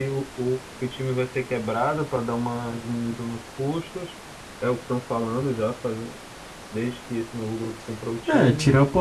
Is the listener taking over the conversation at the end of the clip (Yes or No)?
Yes